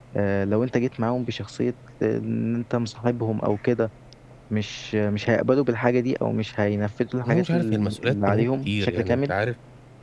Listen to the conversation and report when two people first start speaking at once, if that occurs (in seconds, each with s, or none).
7.2 s